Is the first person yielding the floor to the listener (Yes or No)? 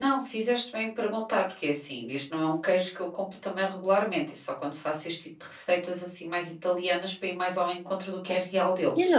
Yes